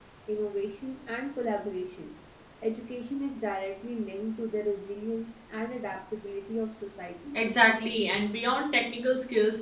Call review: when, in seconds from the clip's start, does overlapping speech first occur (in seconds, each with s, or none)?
none